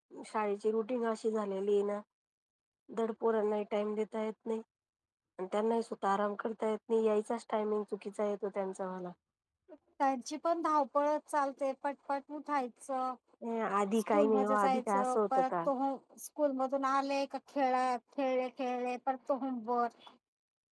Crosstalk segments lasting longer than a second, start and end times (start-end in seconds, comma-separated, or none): 14.1-15.5